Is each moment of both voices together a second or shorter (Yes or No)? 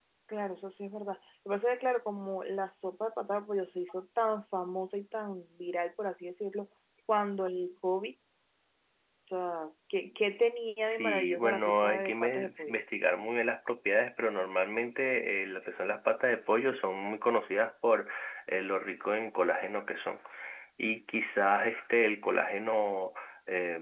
No